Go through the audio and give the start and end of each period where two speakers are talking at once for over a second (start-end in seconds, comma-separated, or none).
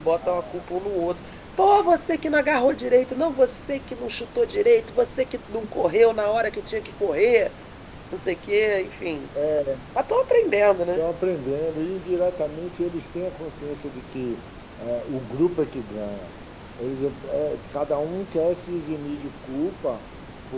none